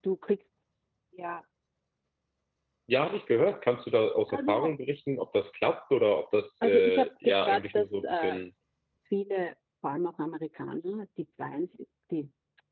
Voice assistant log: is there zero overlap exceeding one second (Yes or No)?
No